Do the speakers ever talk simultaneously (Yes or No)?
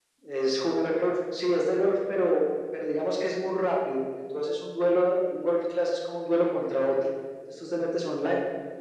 No